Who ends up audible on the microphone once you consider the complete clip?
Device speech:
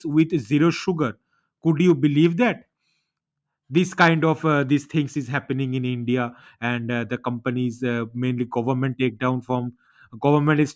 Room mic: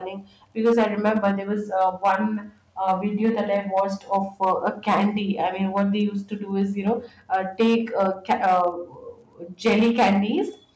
user only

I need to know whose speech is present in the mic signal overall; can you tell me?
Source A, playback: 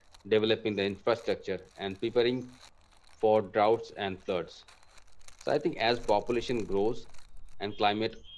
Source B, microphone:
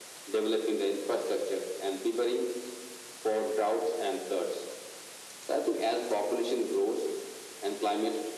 echo only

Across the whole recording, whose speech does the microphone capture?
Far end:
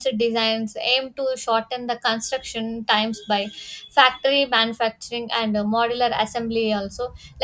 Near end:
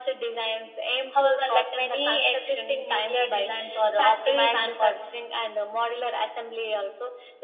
both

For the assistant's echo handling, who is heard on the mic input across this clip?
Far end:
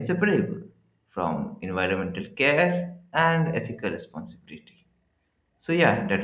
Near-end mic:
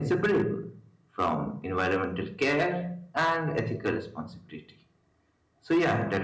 echo only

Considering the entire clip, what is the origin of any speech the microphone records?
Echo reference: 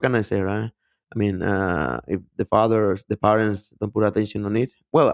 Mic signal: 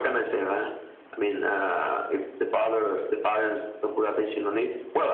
echo only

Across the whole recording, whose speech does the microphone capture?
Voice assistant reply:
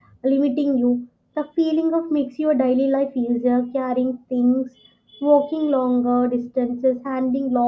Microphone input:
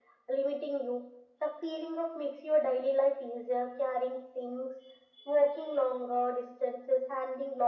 echo only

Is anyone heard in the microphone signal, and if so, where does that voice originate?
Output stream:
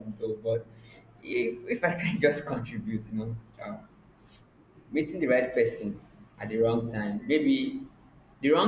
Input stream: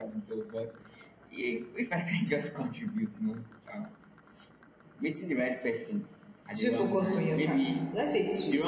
both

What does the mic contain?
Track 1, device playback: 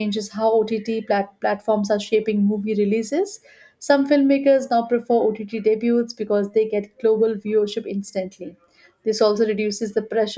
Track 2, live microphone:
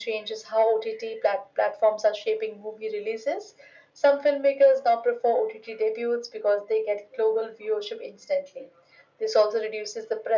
echo only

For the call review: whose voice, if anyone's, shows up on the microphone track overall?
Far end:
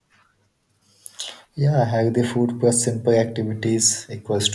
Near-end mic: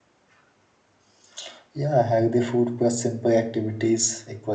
echo only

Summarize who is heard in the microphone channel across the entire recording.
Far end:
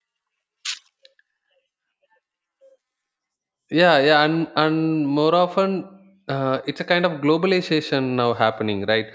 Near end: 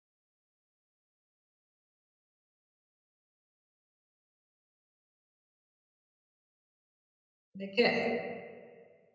user only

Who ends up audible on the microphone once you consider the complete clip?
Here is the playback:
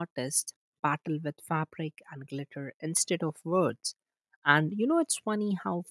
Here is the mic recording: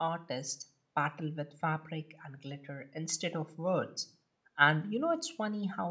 echo only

